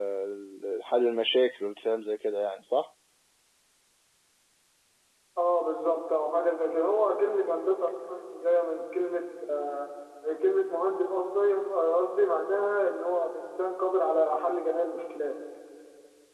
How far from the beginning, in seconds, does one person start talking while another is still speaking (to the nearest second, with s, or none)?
none